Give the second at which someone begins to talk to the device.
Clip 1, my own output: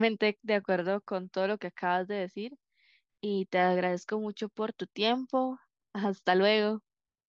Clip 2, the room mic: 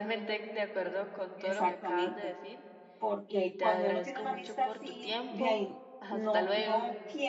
1 s

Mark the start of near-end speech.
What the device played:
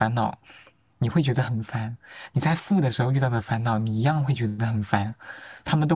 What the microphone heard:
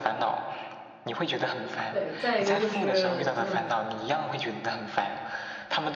2 s

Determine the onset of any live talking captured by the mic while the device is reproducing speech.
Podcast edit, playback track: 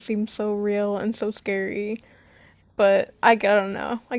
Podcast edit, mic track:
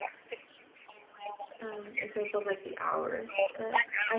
2 s

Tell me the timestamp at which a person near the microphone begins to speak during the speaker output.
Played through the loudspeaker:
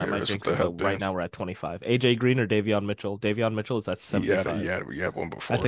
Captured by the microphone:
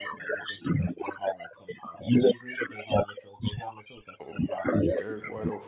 4 s

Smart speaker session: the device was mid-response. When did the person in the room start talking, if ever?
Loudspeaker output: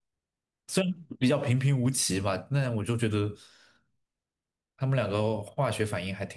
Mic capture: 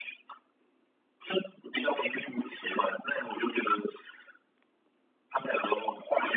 none

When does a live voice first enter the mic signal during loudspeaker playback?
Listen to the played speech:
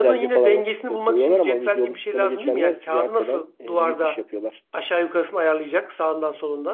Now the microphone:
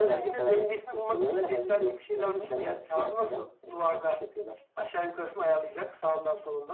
none

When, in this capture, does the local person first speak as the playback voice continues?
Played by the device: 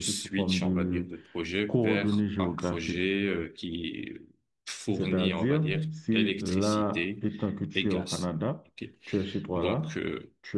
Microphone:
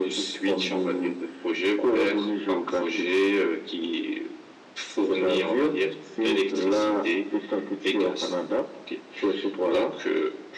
none

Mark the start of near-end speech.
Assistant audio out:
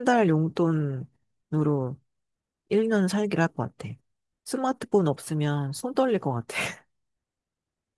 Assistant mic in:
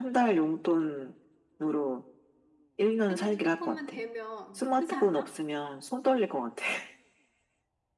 3 s

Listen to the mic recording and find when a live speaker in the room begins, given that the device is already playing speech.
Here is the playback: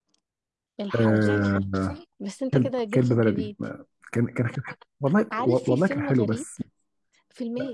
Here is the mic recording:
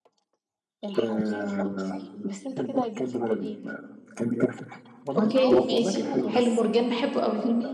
5 s

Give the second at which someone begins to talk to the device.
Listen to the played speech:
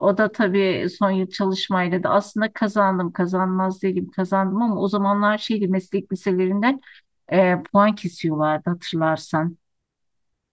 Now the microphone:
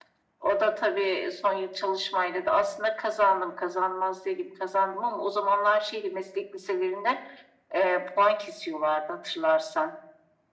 none

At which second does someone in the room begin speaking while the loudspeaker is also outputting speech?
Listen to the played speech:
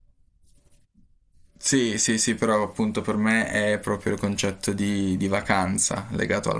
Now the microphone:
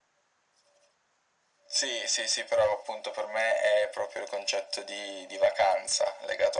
none

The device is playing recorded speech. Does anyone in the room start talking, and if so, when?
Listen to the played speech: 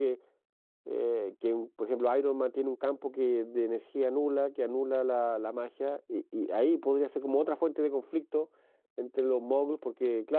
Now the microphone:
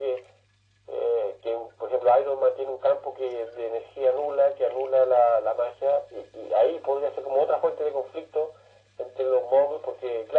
none

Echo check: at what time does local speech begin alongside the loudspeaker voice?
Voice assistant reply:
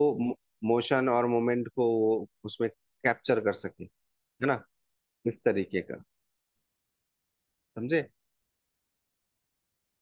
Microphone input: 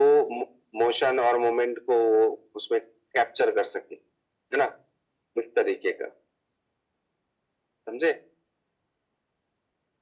none

